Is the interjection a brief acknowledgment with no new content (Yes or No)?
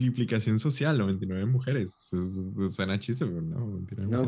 No